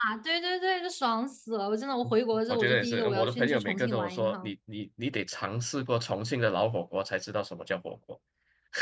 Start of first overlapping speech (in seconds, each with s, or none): 2.5 s